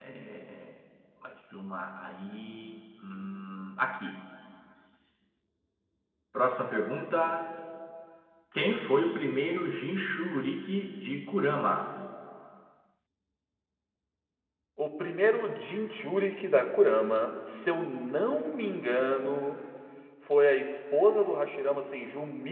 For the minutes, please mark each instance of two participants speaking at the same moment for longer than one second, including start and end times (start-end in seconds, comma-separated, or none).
none